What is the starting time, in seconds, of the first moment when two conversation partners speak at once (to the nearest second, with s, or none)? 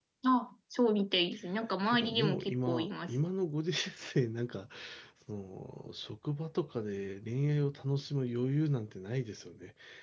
2 s